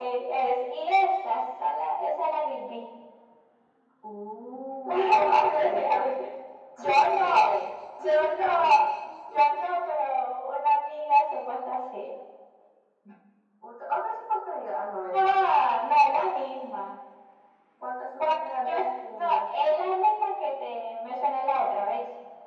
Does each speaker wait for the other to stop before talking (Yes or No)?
No